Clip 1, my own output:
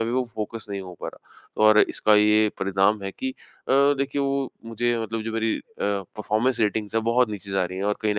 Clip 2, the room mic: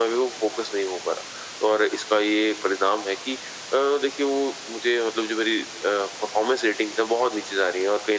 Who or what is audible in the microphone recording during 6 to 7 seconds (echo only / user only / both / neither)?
echo only